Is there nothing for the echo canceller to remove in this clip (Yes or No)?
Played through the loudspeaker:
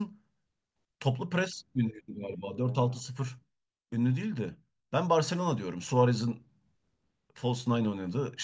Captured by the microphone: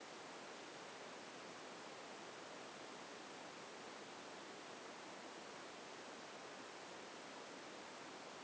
Yes